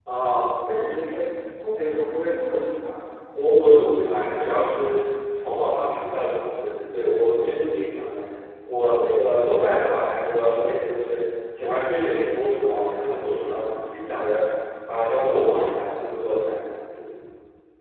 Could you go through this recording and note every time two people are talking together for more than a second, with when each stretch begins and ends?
none

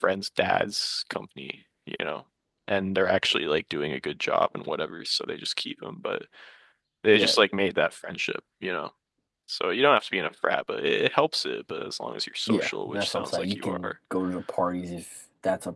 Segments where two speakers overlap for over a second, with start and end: 12.5-13.9

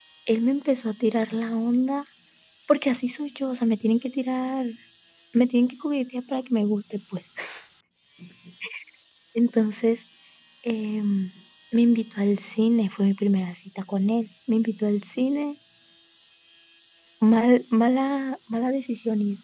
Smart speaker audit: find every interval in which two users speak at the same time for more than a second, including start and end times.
none

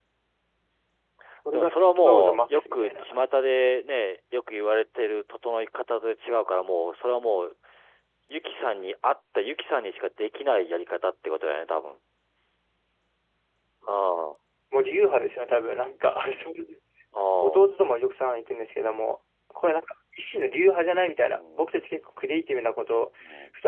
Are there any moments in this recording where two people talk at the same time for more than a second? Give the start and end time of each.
1.5-3.0

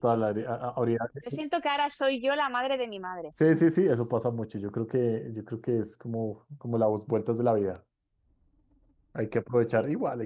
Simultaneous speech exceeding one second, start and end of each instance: none

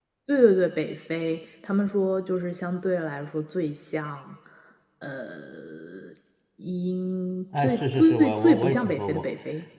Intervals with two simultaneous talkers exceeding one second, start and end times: 7.6-9.3

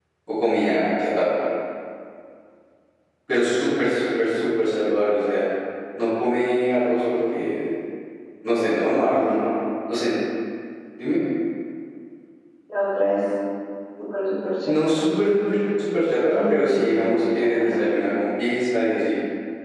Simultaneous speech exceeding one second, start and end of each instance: 16.3-17.8

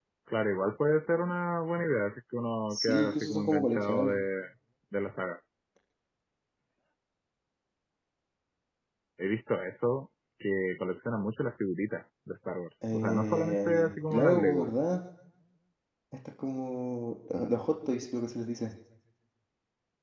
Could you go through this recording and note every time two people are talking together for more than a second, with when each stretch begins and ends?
2.7-4.2, 12.9-14.7

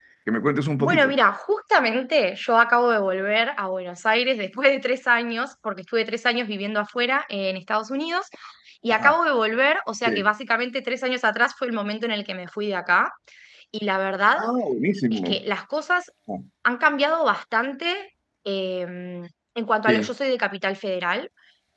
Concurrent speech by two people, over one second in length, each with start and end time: none

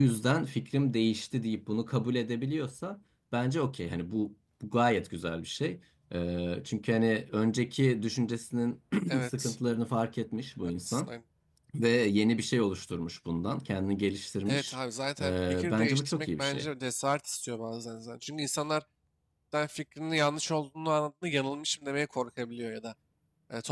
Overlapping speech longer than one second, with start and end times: 15.2-16.7

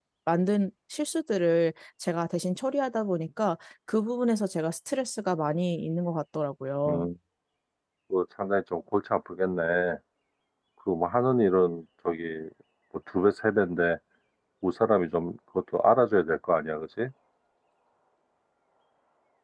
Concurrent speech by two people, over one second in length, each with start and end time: none

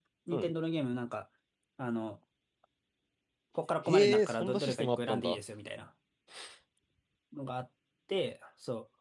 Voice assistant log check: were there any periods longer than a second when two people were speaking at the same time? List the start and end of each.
3.9-5.4

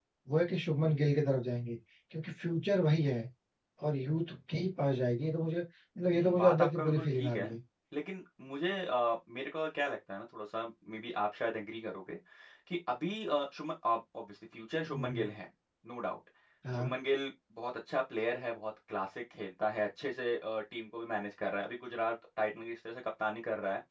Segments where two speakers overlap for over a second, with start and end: 6.1-7.5

